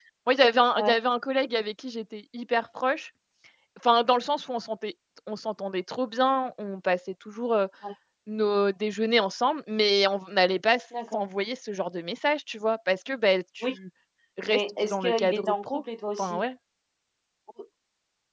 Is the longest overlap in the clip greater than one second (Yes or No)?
Yes